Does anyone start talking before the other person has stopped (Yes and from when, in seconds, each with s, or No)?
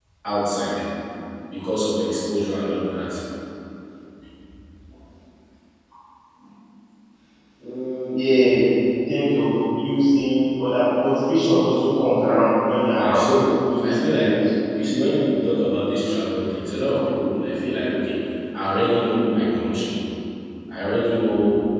Yes, from 12.9 s